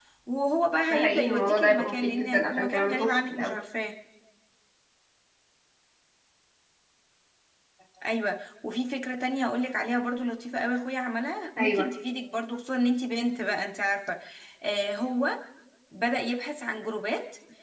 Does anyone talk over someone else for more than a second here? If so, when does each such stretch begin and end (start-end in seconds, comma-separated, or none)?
0.9-3.6